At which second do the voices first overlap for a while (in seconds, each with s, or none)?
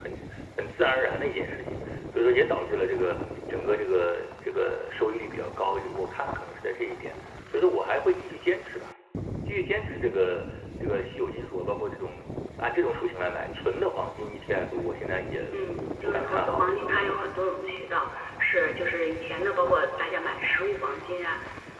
16.0 s